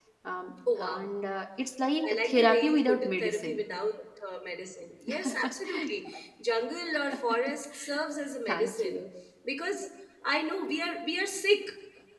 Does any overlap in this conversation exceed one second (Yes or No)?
Yes